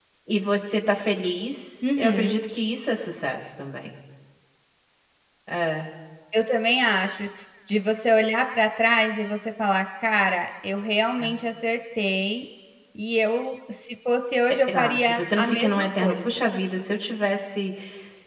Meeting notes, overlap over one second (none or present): present